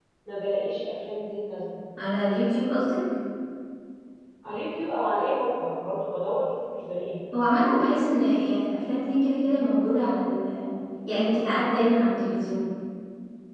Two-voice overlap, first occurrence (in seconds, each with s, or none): none